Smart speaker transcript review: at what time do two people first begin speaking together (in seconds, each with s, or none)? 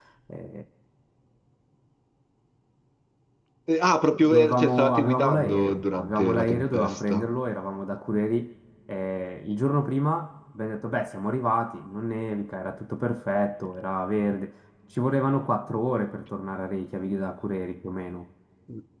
4.2 s